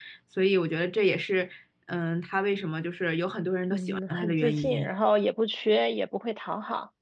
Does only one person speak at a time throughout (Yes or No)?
No